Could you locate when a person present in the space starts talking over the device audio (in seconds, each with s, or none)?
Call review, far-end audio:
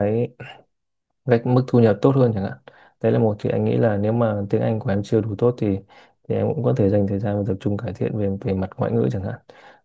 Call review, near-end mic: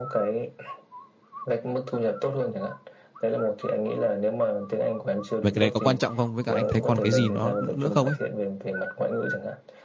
5.4 s